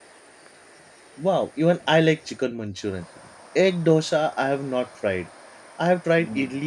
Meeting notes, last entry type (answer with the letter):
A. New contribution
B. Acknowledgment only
B